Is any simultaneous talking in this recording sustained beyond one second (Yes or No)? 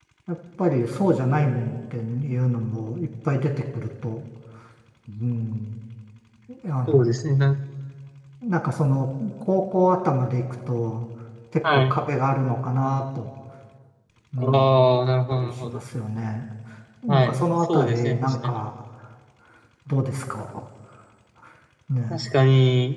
Yes